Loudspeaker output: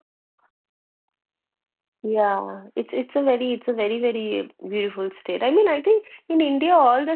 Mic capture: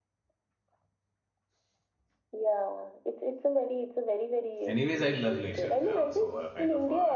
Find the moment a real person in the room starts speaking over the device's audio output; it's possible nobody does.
4.7 s

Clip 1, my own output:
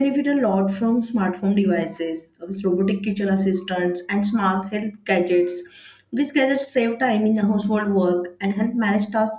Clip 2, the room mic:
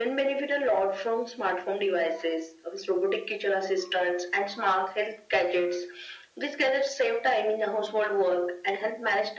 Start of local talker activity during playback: none

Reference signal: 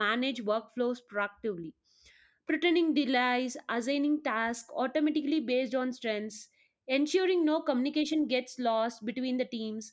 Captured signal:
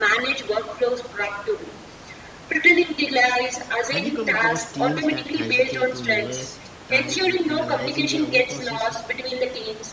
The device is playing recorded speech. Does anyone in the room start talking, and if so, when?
3.9 s

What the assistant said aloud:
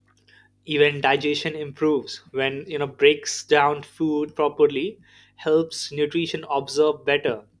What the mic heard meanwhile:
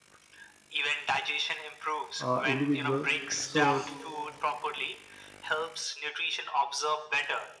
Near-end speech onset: 2.2 s

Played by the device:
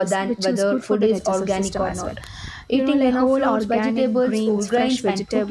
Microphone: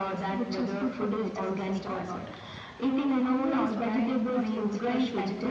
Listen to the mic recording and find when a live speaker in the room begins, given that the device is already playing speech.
3.3 s

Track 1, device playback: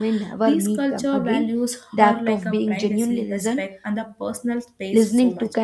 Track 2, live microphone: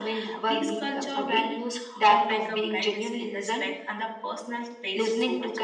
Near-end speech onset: none

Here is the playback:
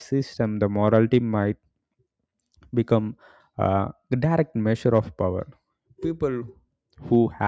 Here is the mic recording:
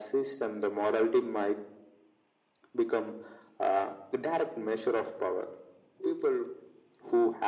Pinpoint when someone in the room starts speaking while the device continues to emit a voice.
none

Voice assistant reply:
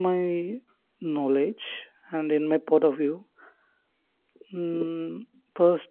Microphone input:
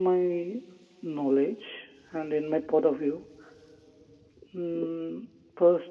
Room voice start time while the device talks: none

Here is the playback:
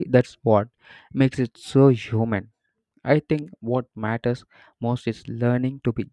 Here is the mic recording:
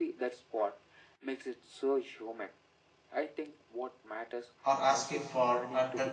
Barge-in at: 4.6 s

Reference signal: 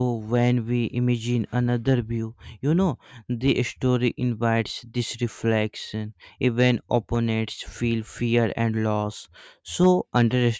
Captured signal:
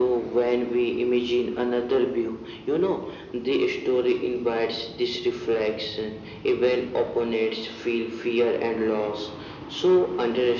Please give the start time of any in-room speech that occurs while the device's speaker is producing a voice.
none

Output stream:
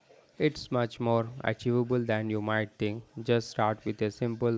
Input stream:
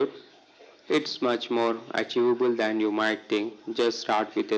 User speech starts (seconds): none

